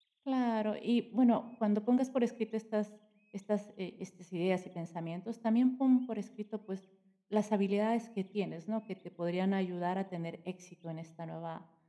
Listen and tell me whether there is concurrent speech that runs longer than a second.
No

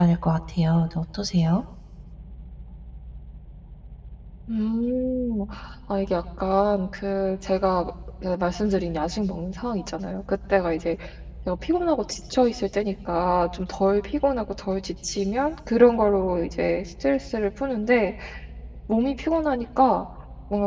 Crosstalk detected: No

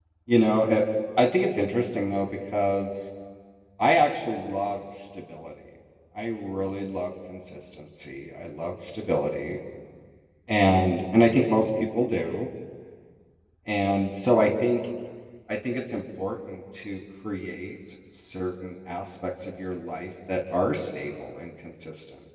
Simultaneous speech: No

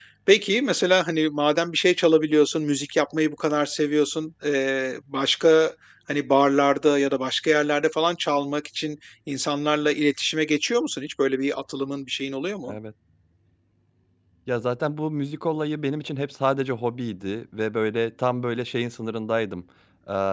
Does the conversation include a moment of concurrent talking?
No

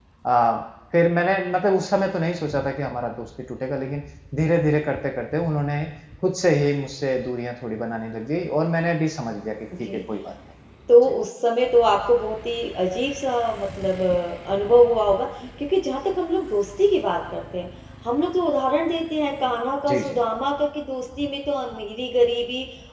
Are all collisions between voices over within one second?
Yes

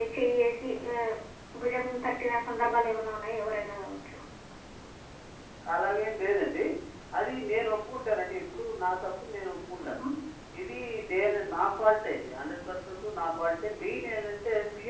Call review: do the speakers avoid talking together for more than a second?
Yes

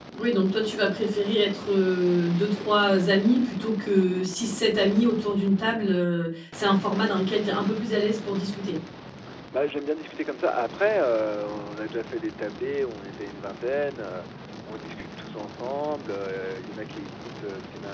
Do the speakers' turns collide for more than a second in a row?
No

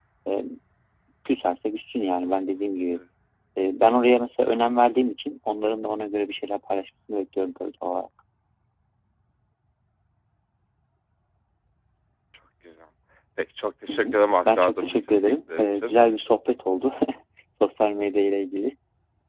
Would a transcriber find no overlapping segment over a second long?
No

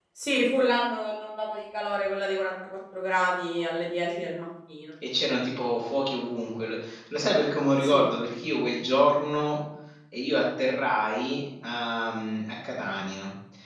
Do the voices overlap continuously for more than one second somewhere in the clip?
No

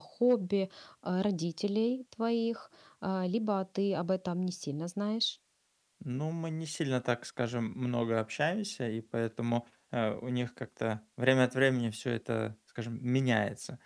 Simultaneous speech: No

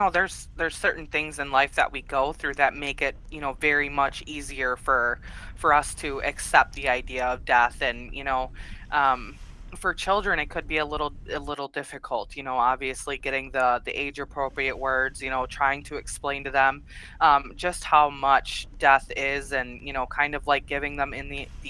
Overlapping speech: No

